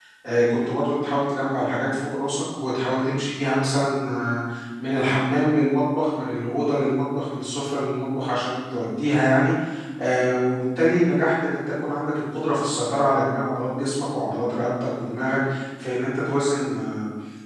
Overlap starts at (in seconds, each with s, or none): none